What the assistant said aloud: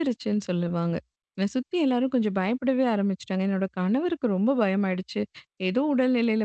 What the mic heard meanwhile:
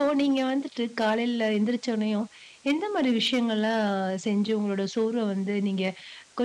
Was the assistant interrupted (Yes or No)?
Yes